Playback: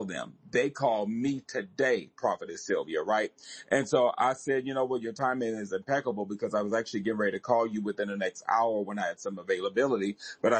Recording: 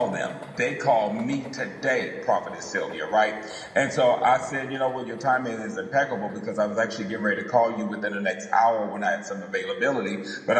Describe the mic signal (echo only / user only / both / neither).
echo only